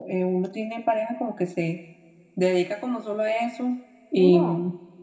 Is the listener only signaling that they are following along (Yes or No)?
Yes